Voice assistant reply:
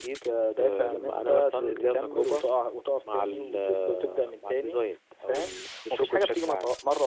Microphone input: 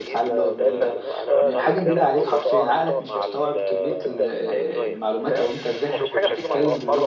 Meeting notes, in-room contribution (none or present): present